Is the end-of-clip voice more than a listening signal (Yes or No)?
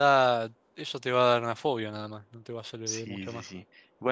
Yes